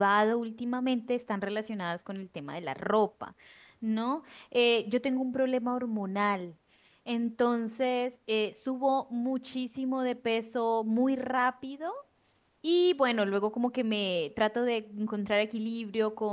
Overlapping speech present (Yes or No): No